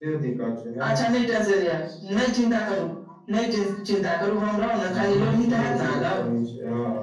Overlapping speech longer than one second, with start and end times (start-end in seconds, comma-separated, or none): 4.8-6.2